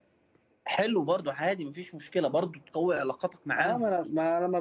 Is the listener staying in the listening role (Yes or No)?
No